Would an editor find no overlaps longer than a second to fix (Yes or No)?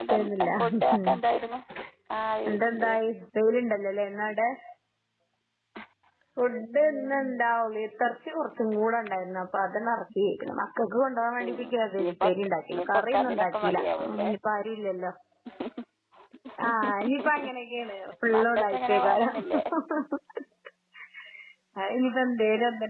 No